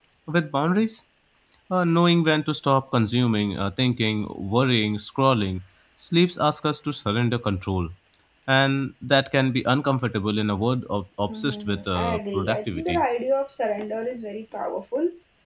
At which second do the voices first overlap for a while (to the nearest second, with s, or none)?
11 s